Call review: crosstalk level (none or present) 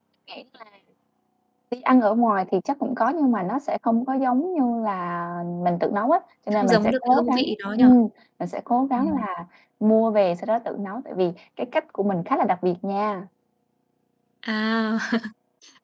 present